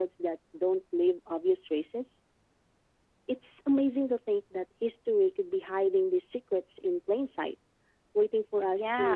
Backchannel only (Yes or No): No